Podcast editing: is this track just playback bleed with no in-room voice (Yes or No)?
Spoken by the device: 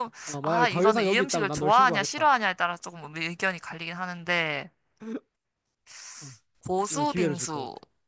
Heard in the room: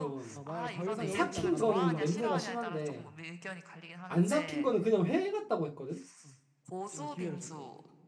No